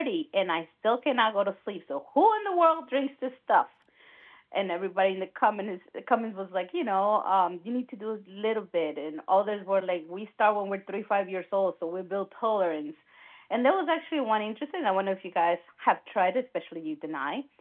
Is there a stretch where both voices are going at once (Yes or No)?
No